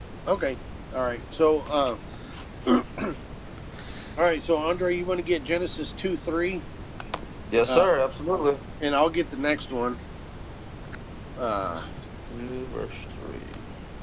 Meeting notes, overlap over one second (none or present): none